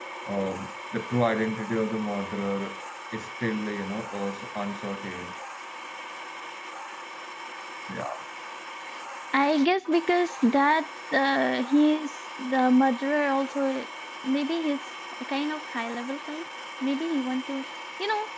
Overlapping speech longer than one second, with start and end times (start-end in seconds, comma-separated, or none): none